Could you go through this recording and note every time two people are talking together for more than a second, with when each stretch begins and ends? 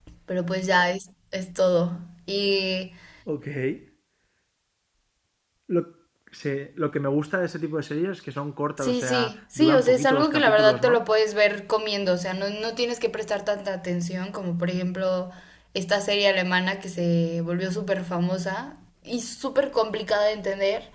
8.8-11.0

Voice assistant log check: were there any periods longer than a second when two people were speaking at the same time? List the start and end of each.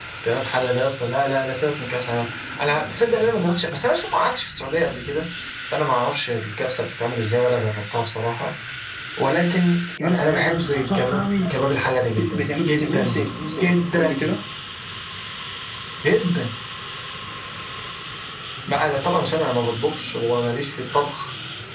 10.0-11.5, 12.3-14.3

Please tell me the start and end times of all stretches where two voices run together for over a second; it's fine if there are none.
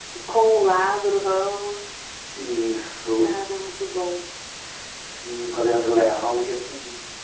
none

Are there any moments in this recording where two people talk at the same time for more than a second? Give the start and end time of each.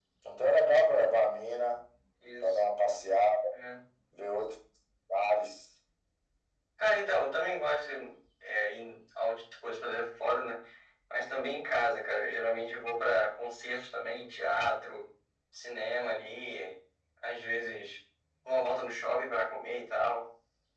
none

